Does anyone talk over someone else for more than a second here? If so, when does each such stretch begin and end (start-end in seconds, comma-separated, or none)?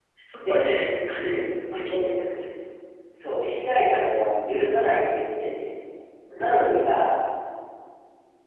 none